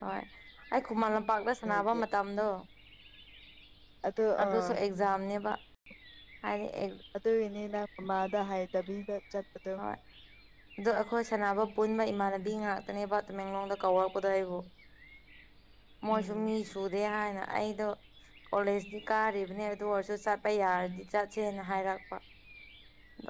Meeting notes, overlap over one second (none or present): none